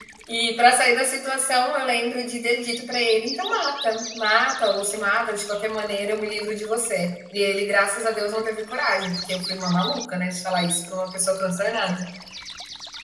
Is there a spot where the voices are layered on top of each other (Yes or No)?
No